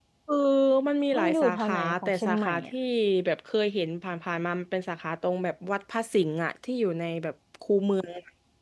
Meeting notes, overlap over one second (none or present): present